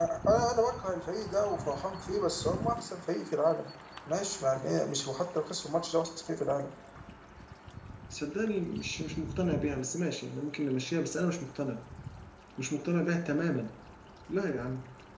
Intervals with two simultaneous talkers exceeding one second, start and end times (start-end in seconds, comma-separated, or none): none